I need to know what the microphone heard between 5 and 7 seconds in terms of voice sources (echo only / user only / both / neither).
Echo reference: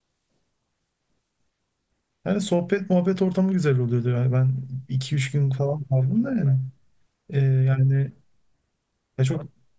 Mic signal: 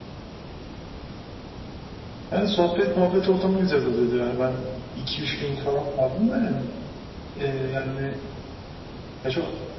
echo only